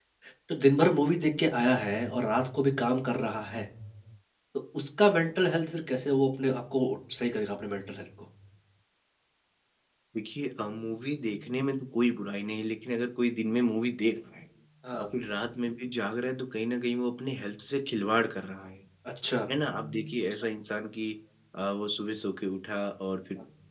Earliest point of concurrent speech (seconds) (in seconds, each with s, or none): none